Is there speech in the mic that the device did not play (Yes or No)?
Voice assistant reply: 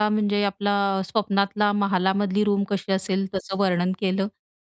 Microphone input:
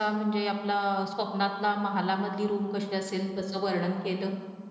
No